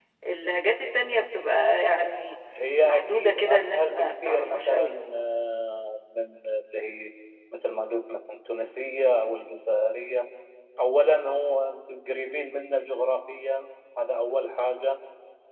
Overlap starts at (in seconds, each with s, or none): 2.8 s